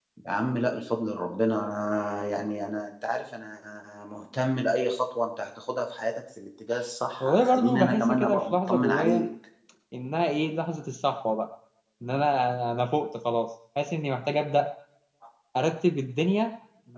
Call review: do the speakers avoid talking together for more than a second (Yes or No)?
No